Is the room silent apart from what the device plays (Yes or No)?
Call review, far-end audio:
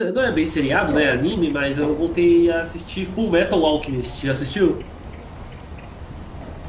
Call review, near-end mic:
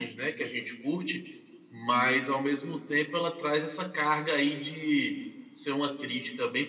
No